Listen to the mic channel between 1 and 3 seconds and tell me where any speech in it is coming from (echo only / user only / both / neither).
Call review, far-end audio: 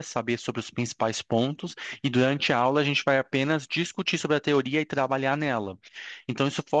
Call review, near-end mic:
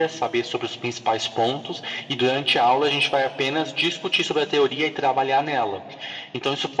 echo only